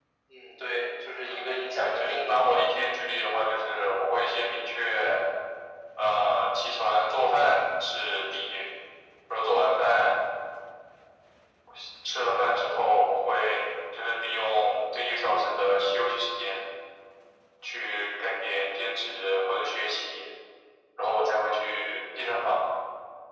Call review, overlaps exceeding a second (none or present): present